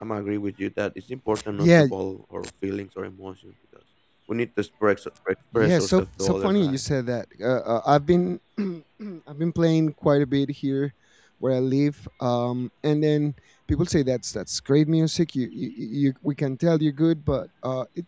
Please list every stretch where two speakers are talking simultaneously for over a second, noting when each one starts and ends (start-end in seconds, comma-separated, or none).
5.5-6.8